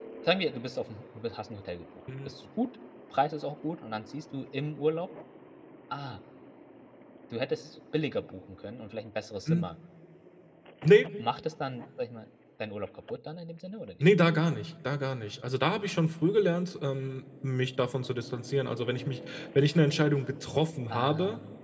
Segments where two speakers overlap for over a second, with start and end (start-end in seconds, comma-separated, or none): none